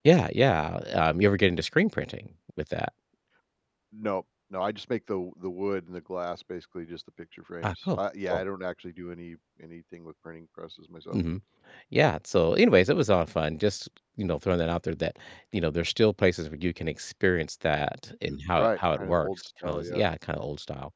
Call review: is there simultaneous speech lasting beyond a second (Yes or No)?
Yes